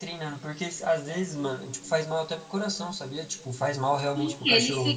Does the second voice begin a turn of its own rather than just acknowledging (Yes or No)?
Yes